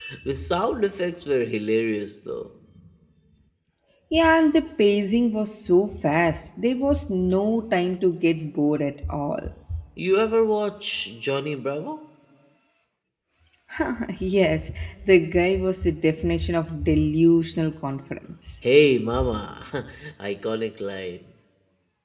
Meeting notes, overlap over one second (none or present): none